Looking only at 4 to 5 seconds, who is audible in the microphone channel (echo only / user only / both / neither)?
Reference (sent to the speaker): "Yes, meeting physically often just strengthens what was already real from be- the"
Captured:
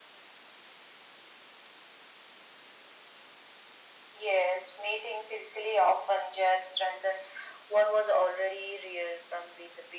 echo only